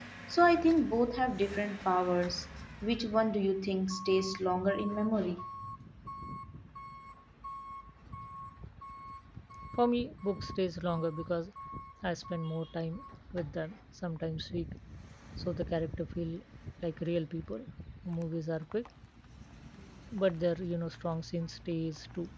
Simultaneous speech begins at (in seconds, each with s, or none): none